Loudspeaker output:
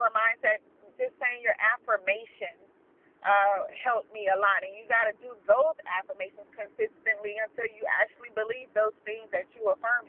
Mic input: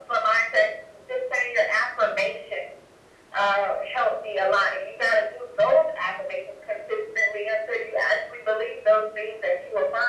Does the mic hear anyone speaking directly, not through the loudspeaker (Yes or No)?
No